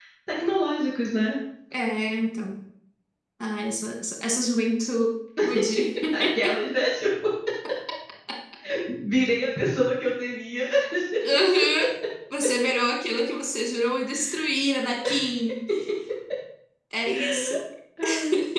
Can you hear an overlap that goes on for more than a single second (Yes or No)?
No